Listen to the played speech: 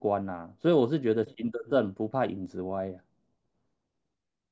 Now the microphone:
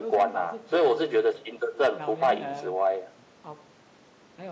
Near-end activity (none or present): present